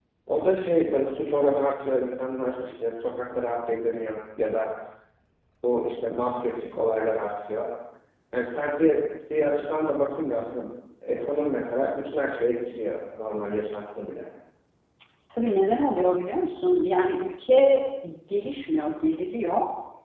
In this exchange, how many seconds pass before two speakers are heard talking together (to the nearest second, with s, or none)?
none